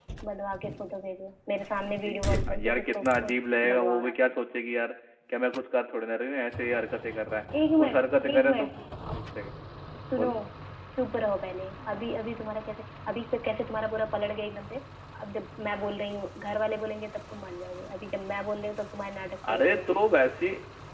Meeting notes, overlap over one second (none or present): present